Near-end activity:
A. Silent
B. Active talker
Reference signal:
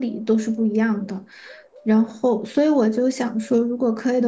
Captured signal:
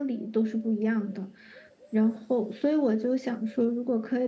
A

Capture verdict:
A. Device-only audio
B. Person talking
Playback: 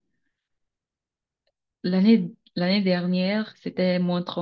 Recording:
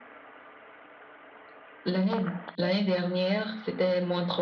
A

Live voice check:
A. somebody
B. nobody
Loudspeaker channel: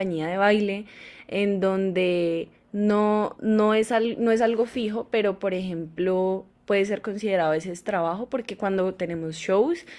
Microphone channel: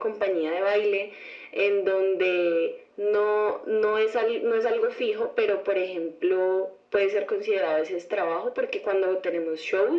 B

